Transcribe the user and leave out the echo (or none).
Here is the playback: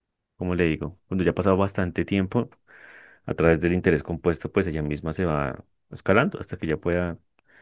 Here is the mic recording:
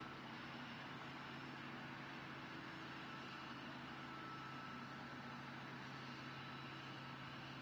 none